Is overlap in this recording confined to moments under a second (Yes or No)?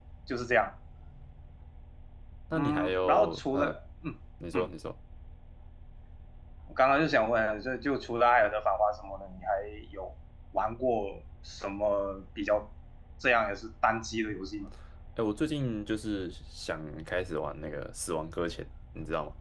No